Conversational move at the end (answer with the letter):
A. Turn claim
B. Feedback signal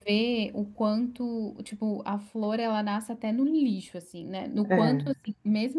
B